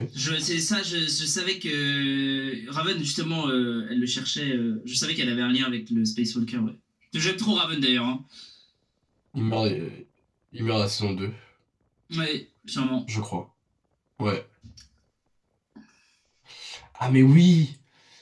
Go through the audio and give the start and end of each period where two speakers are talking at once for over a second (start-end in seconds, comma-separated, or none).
none